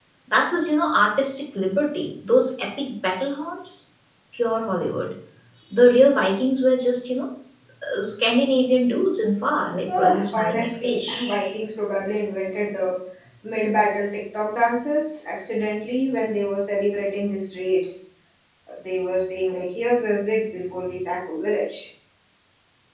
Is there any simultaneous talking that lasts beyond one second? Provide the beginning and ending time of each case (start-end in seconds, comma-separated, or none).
9.9-11.4